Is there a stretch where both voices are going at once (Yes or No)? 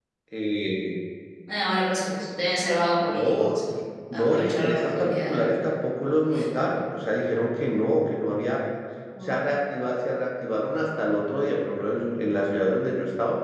Yes